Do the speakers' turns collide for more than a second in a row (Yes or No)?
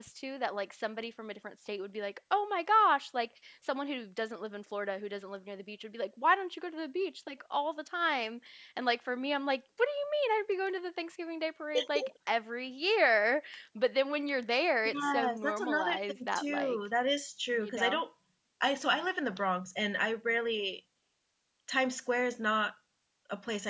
Yes